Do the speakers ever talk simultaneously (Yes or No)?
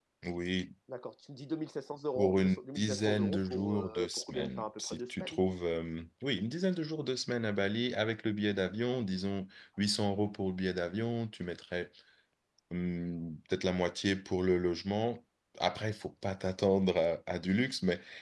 Yes